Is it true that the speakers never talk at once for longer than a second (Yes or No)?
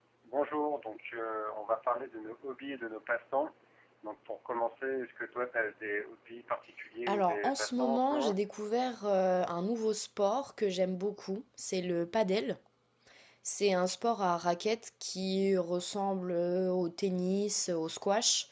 No